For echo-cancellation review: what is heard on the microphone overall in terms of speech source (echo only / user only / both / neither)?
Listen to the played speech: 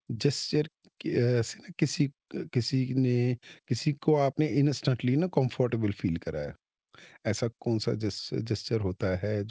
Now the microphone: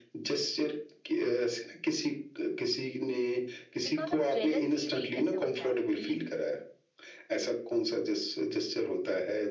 both